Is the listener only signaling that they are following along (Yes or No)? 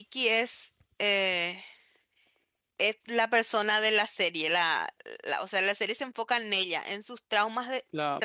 Yes